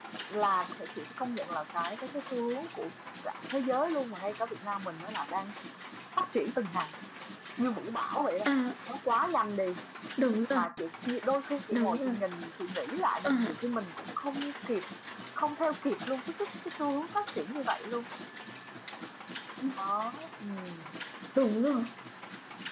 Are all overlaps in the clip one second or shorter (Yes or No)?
Yes